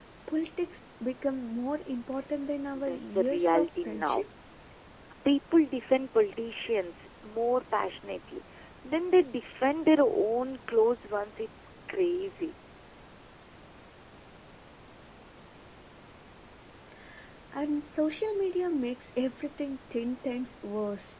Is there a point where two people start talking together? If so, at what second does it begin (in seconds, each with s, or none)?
2.7 s